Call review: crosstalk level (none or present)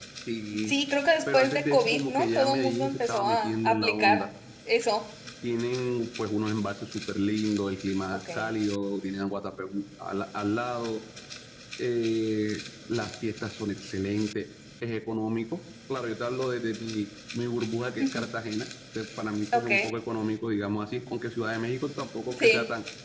present